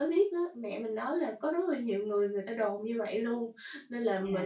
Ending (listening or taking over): listening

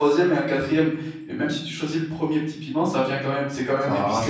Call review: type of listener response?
listening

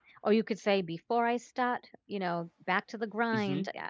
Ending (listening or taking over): listening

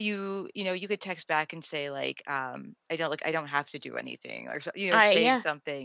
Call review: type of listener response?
listening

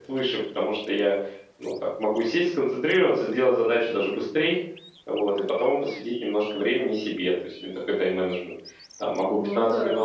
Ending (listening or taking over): listening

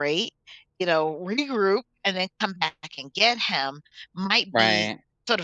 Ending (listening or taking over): listening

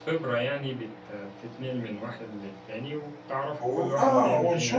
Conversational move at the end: taking over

